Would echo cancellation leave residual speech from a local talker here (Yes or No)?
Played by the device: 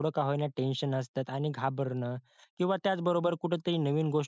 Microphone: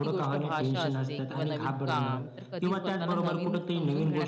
Yes